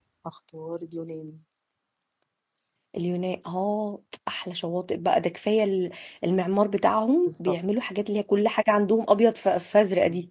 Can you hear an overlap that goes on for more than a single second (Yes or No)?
No